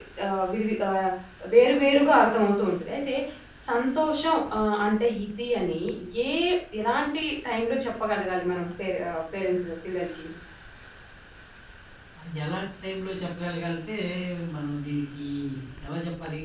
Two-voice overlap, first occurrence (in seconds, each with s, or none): none